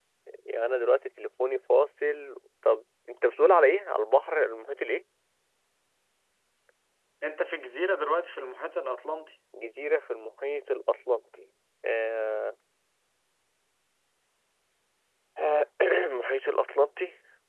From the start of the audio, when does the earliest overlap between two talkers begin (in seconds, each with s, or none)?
none